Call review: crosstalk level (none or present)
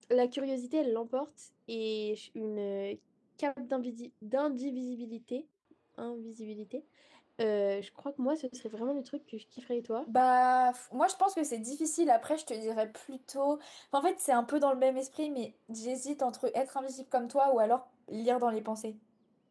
none